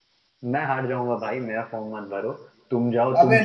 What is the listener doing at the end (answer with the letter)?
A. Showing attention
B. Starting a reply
B